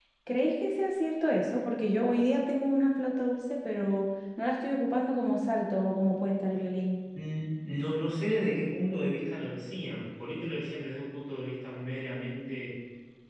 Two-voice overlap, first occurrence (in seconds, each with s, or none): none